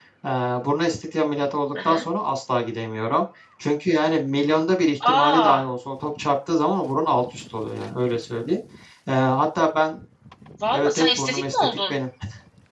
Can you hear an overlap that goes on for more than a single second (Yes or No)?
Yes